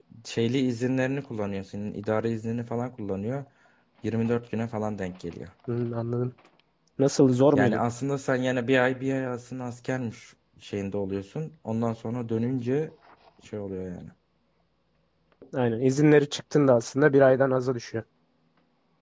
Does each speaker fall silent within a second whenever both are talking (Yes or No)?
Yes